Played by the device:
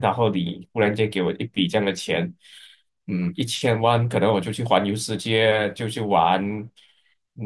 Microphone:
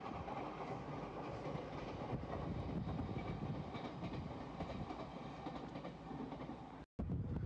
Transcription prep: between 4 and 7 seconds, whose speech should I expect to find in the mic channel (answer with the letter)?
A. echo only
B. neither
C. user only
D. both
B